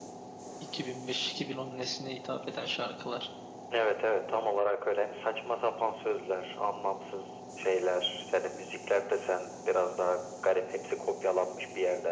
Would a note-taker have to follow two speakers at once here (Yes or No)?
No